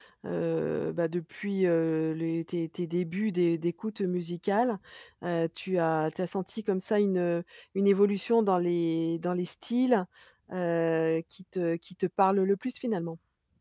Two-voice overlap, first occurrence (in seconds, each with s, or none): none